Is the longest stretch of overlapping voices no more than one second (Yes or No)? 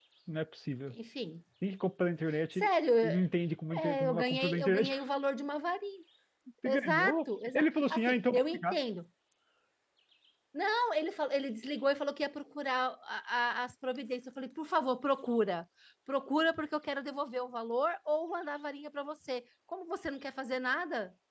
No